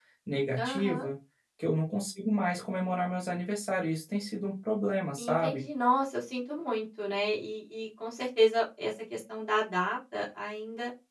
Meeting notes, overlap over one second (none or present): none